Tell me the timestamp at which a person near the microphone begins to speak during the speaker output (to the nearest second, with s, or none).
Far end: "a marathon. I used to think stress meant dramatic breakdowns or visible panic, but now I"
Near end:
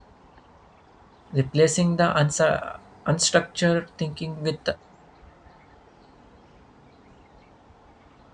1 s